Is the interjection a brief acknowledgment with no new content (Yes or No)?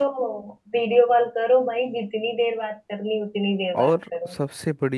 No